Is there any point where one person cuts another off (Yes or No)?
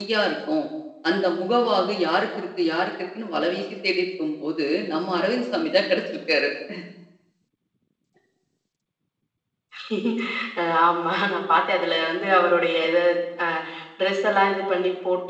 No